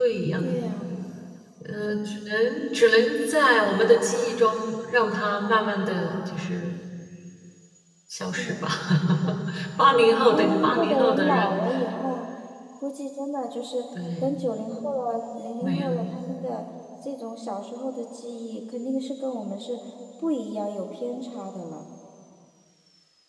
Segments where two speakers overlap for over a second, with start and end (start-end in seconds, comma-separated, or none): 10.3-11.5